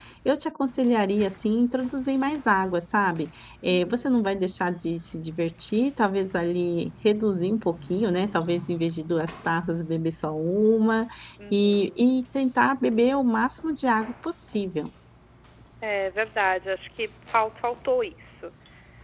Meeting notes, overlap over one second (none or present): none